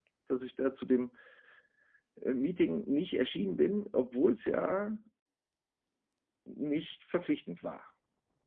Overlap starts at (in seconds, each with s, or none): none